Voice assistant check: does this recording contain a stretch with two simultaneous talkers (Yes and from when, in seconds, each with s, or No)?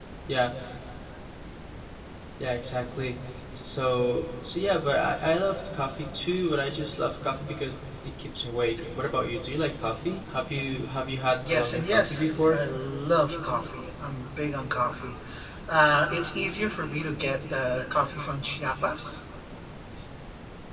Yes, from 11.4 s